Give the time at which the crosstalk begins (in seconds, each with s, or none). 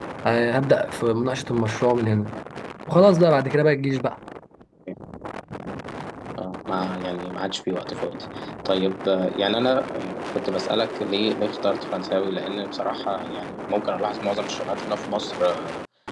none